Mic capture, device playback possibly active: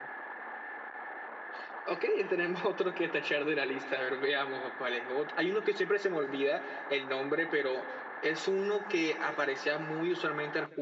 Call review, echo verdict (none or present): none